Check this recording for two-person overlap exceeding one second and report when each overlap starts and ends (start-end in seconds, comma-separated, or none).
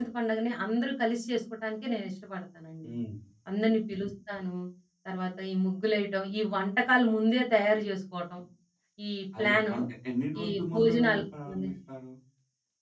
10.4-11.7